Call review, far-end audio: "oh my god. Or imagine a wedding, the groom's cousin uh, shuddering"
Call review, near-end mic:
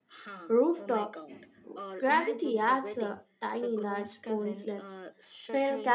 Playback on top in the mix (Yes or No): No